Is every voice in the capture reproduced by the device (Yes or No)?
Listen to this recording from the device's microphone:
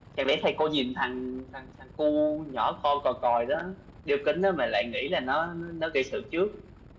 Yes